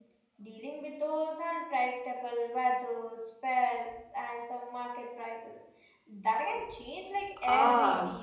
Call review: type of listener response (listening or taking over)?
taking over